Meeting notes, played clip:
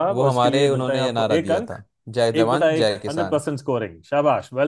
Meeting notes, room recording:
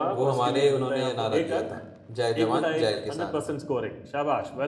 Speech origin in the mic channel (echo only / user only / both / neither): echo only